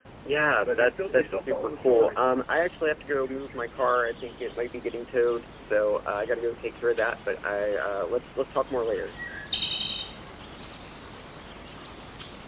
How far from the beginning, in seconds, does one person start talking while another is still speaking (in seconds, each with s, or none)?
0.6 s